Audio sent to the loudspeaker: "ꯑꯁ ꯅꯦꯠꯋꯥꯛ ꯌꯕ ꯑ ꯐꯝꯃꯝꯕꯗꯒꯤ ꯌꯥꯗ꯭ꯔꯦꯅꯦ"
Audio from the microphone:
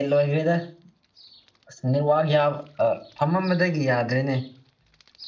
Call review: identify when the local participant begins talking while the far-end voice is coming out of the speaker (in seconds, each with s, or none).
none